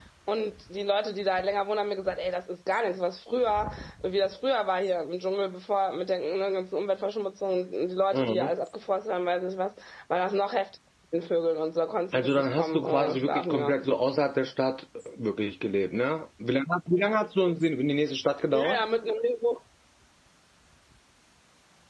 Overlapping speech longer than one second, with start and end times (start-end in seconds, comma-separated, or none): 12.1-13.8